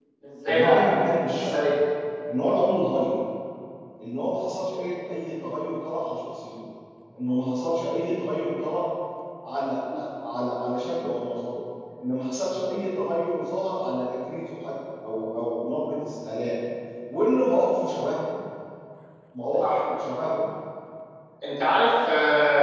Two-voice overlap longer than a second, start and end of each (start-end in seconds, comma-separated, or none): none